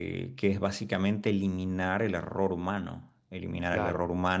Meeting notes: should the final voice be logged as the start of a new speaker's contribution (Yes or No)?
No